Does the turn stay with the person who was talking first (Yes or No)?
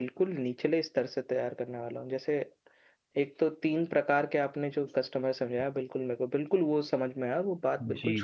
No